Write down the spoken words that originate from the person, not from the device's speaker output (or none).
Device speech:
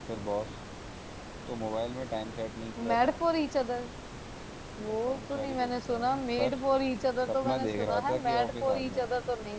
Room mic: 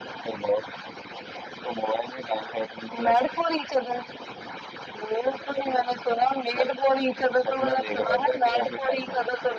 none